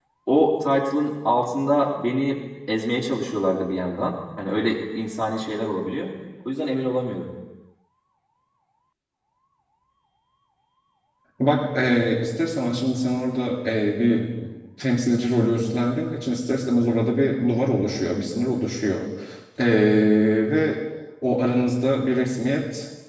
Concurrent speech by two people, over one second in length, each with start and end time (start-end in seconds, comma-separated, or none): none